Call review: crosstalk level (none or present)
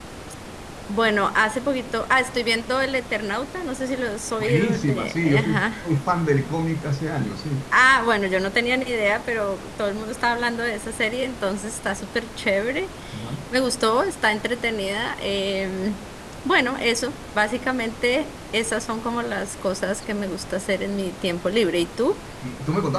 present